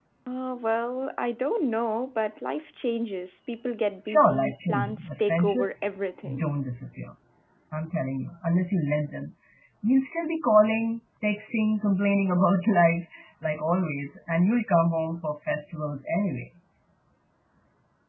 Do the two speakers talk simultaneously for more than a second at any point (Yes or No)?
Yes